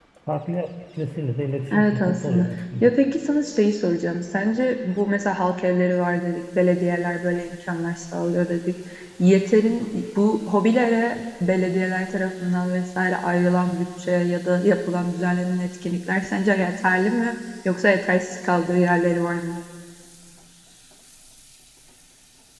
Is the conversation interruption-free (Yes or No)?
No